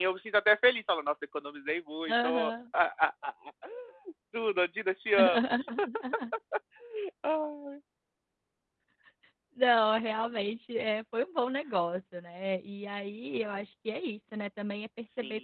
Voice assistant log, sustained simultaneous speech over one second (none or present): none